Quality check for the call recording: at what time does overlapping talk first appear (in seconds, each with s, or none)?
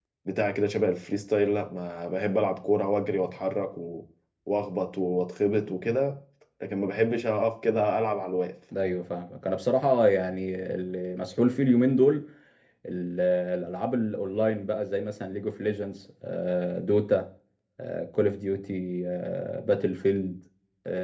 none